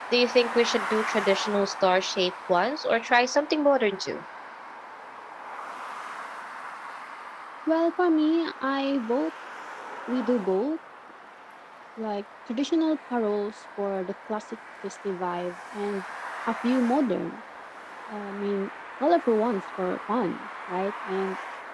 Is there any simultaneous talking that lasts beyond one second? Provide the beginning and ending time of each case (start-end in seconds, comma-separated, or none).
none